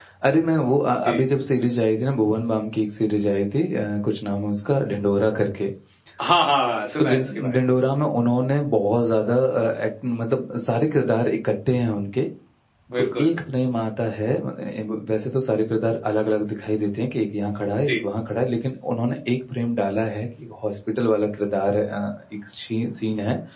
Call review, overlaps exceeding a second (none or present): none